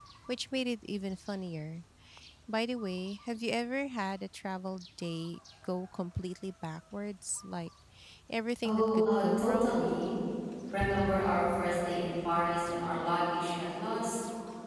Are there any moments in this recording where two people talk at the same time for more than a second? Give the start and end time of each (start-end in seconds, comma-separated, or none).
8.7-9.9